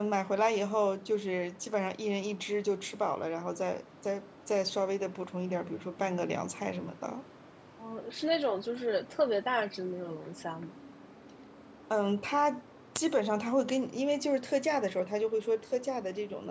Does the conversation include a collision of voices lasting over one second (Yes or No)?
No